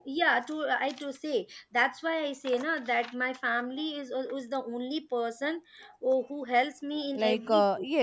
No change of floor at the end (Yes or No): No